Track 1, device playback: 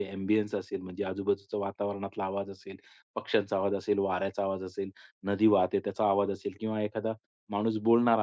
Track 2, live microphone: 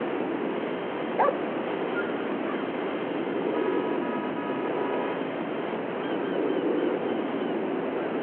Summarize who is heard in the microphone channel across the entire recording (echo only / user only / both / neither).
neither